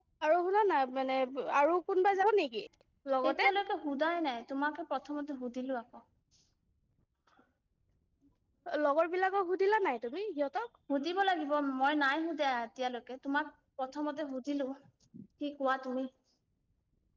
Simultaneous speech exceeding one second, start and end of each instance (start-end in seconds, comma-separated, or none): none